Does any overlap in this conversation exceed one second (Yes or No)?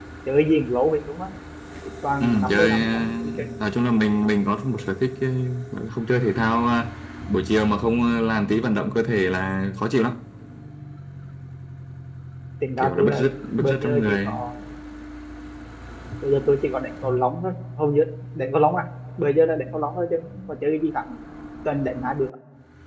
Yes